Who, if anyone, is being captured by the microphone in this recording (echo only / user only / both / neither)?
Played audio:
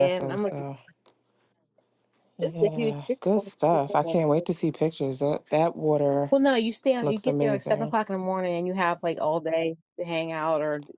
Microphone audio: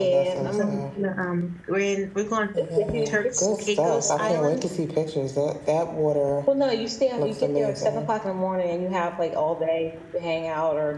both